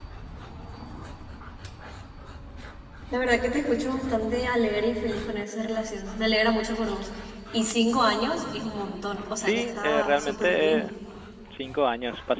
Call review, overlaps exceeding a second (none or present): present